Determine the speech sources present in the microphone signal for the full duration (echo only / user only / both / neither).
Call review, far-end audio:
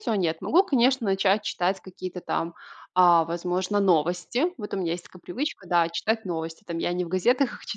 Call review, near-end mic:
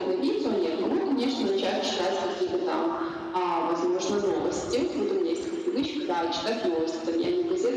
echo only